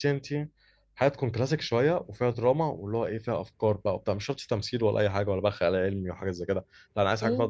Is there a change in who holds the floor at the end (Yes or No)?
No